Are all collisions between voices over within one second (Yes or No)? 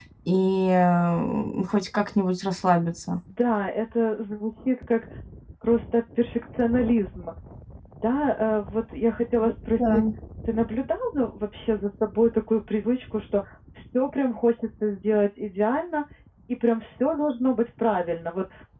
Yes